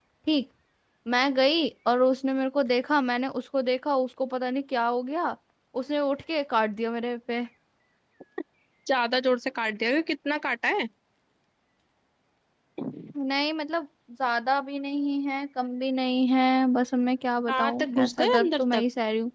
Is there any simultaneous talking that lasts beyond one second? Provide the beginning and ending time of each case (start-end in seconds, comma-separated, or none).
17.5-18.8